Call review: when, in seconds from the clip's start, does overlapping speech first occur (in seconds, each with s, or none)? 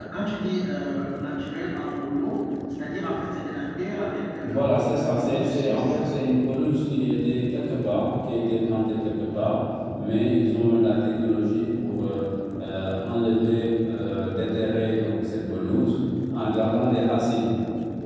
4.4 s